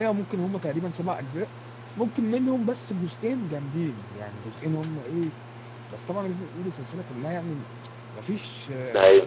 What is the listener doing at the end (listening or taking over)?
listening